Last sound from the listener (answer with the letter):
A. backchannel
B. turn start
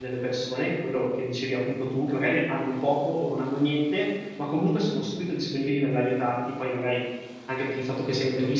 A